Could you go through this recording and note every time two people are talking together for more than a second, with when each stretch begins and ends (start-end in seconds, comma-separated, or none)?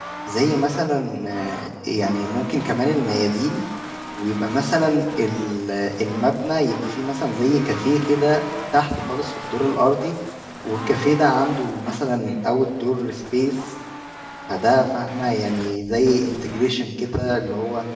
none